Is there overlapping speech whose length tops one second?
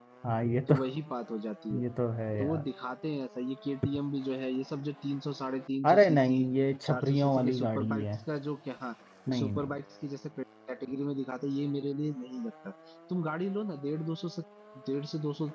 Yes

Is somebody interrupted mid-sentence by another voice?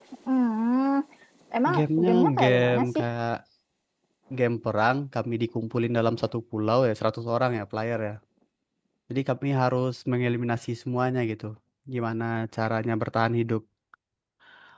Yes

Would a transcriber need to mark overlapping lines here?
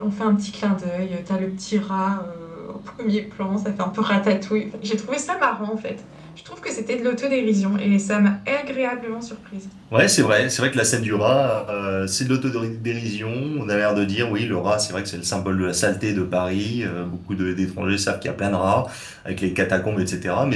No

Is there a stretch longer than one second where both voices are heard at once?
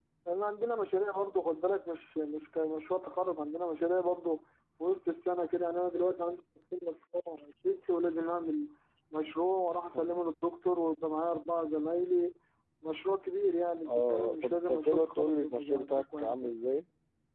Yes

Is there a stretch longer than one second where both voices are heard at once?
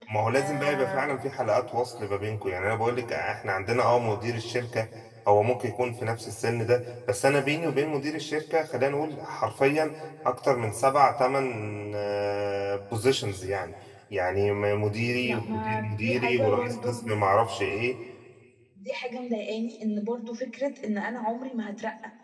Yes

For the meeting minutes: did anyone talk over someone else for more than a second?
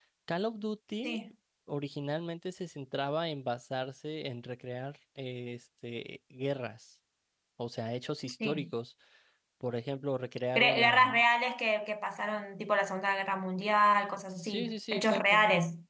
Yes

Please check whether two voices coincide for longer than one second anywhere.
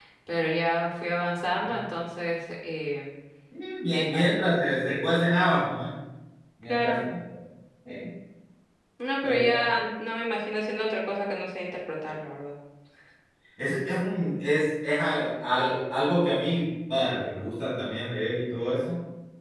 Yes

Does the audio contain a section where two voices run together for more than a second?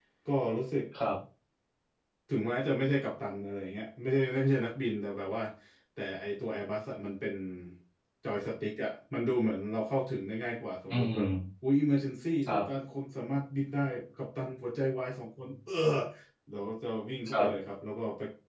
No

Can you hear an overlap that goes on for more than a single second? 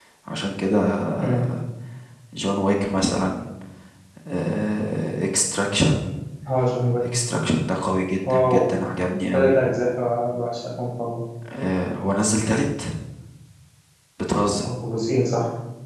No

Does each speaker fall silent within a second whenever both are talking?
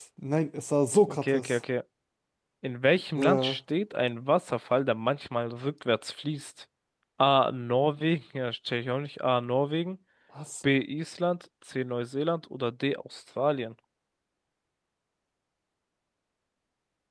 Yes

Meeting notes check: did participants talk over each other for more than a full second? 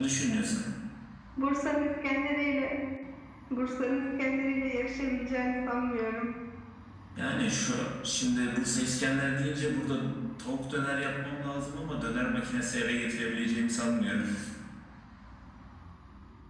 No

